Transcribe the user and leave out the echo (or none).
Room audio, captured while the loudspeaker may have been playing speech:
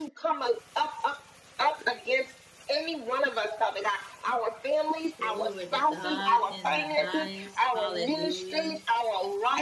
Glory to God in the highest. Hallelujah.